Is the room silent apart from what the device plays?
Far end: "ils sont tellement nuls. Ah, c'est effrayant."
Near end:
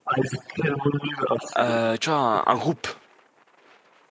No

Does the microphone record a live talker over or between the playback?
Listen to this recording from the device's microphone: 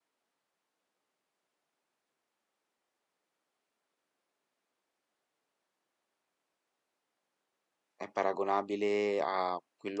Yes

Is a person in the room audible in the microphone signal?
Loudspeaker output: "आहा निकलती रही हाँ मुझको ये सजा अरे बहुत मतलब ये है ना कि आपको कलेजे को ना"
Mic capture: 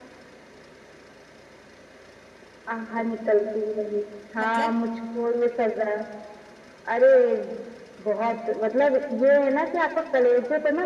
Yes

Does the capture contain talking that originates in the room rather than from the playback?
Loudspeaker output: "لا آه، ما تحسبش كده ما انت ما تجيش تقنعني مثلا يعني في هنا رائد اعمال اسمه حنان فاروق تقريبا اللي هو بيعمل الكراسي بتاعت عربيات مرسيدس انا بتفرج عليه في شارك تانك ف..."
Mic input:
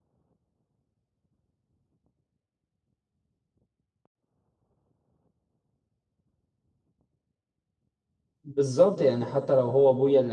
Yes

